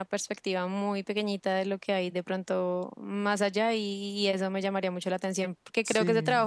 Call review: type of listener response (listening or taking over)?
listening